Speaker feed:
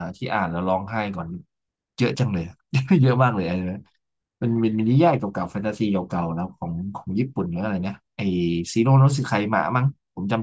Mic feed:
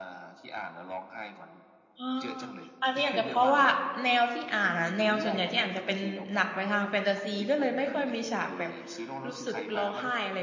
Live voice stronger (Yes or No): Yes